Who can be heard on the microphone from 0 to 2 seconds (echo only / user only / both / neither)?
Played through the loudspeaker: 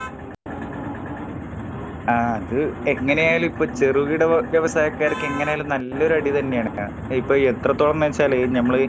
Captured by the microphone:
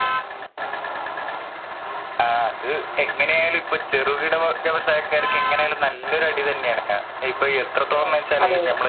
neither